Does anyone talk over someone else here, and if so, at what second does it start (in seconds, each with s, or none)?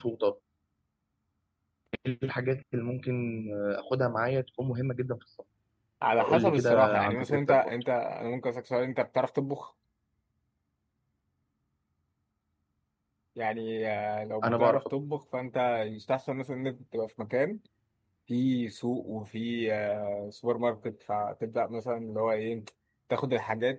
6.2 s